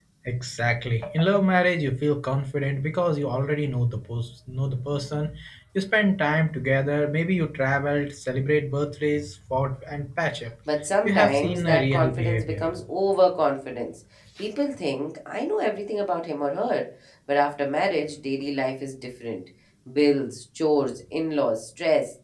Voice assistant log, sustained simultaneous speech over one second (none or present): present